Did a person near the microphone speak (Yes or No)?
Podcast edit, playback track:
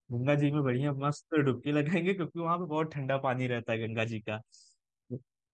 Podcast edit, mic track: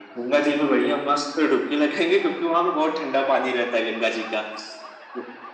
No